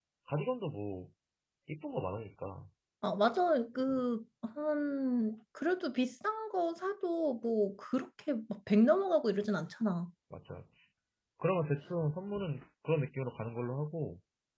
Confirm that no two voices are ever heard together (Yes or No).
Yes